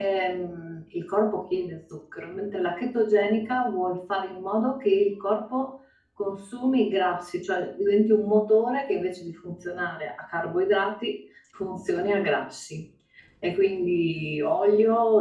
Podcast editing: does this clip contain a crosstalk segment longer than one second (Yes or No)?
No